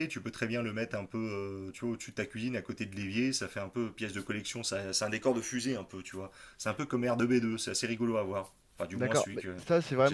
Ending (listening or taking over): taking over